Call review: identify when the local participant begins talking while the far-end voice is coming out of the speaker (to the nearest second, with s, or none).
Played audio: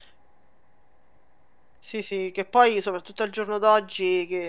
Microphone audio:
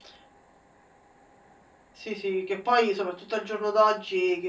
none